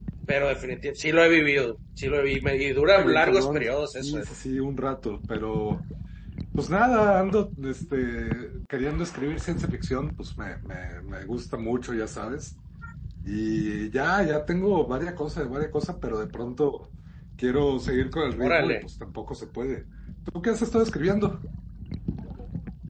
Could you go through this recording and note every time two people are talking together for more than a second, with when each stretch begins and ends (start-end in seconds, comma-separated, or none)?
3.0-4.2